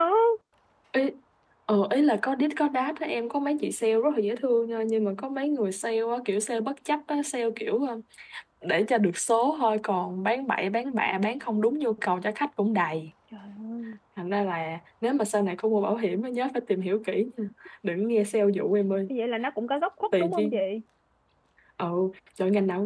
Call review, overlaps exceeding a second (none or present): none